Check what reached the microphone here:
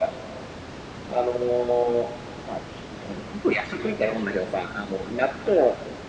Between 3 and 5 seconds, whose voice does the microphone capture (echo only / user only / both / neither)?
echo only